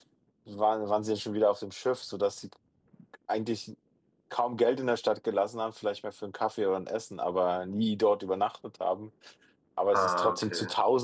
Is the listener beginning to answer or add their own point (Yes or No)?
No